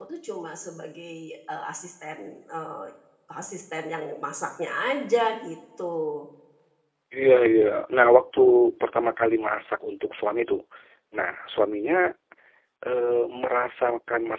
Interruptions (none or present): none